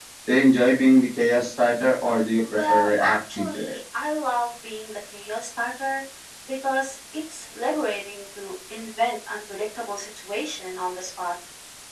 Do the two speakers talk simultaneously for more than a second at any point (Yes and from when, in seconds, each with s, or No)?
Yes, from 2.5 s